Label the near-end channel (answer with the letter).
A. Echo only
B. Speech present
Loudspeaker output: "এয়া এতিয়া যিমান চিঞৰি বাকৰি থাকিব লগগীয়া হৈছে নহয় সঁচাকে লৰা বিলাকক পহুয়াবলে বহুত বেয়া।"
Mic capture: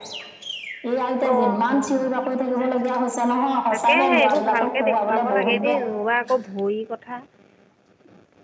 B